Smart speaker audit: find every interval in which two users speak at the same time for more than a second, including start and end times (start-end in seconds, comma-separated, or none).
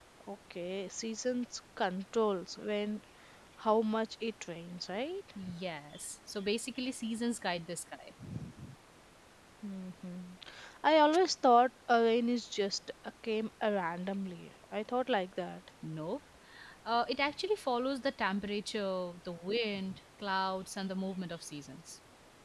none